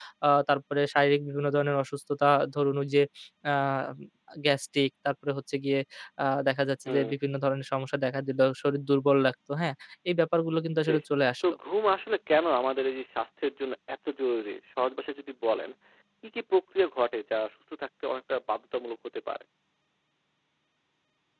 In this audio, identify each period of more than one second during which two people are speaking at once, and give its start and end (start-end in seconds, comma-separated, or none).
none